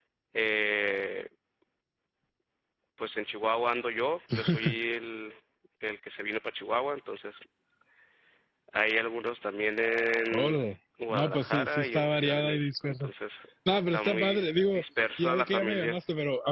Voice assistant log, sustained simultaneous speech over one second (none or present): present